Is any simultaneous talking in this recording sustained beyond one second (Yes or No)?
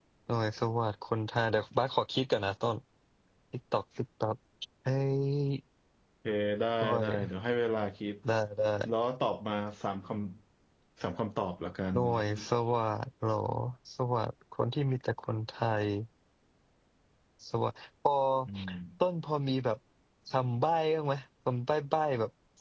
No